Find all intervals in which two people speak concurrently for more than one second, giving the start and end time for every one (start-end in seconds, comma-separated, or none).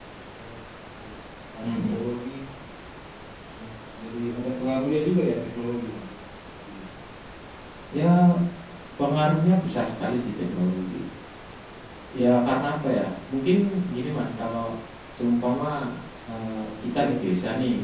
none